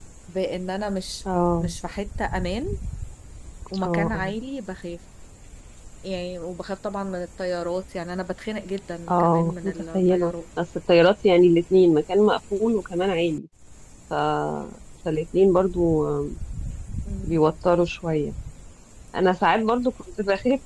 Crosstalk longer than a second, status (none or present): present